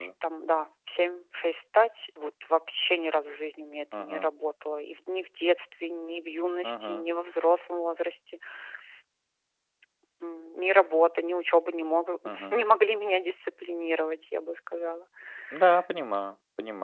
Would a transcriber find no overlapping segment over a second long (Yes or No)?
Yes